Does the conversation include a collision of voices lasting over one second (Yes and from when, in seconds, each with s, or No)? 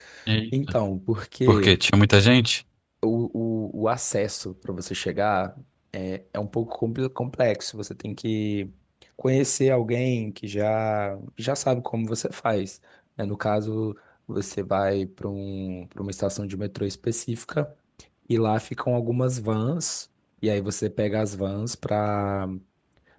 No